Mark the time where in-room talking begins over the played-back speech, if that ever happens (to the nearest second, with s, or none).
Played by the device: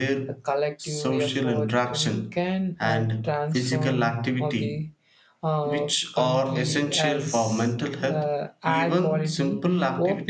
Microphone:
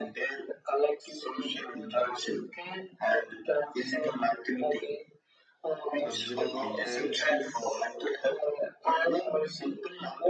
6 s